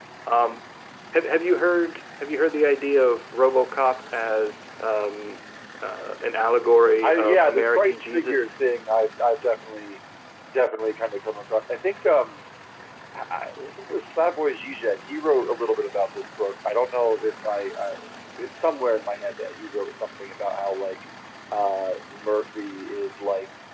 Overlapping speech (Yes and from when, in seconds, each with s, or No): Yes, from 7.0 s